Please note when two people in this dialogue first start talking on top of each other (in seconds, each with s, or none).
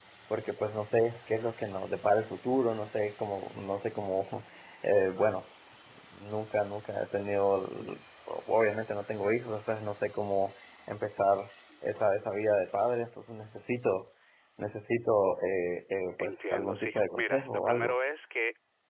16.2 s